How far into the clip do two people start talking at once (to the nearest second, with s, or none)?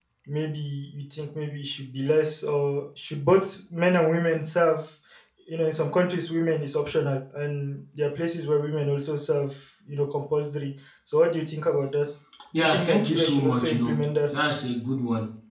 13 s